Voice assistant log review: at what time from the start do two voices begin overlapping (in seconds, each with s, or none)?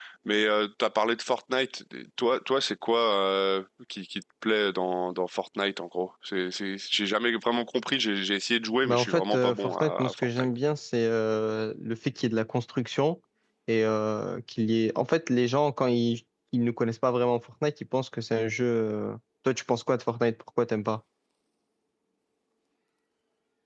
8.8 s